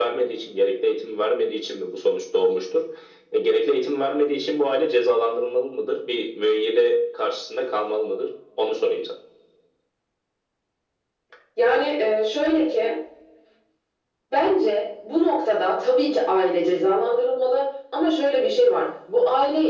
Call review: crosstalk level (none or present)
none